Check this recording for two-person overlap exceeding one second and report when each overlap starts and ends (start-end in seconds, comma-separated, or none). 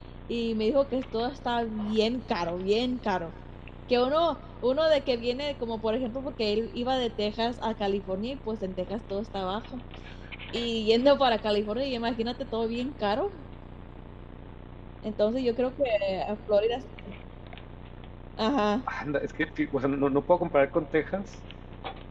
none